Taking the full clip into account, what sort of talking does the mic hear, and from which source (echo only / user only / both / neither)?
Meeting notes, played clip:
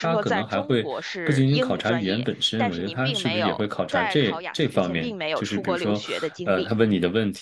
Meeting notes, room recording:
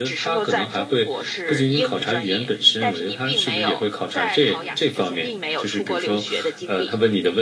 echo only